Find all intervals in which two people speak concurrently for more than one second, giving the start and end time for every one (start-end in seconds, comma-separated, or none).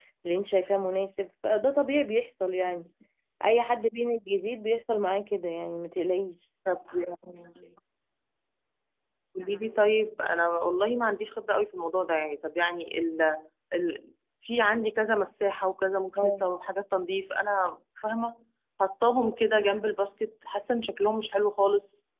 none